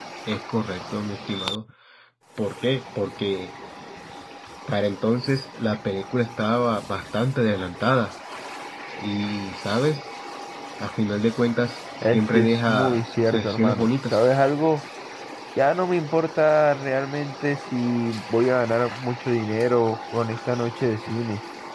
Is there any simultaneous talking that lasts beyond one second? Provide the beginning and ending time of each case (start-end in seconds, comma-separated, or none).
12.0-14.2